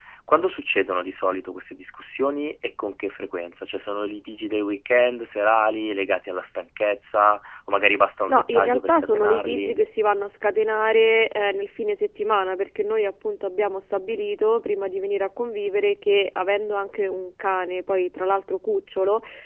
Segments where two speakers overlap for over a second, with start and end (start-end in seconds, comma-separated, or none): 8.3-9.8